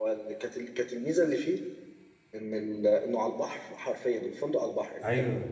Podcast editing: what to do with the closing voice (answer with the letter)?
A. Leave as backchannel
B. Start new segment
A